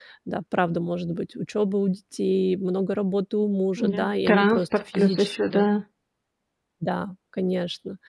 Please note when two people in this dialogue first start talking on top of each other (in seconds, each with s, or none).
3.8 s